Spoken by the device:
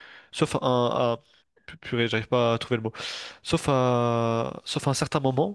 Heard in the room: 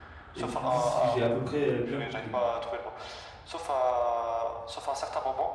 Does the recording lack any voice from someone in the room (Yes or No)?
No